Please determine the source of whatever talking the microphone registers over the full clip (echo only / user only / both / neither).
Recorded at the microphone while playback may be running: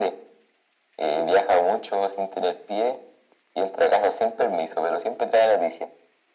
echo only